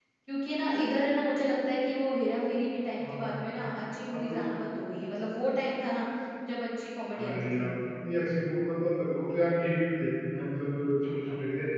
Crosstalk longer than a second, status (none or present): none